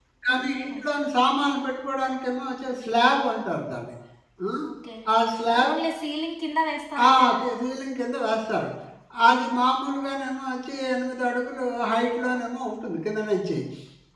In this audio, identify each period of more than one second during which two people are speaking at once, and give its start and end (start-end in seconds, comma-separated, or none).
none